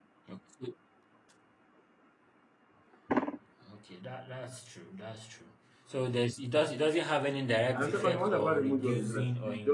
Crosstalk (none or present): present